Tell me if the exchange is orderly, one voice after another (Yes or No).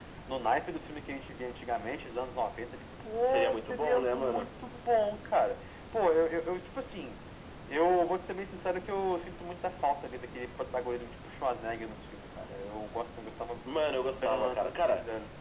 No